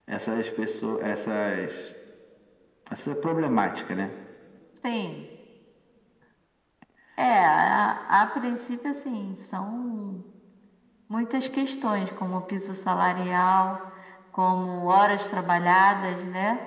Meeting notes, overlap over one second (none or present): none